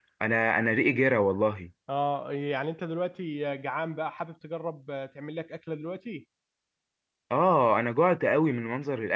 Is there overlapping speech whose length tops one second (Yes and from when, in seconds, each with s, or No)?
No